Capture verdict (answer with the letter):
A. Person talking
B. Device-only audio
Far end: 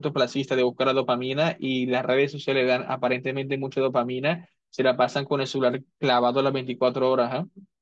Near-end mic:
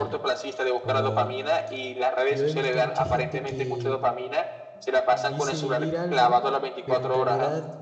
A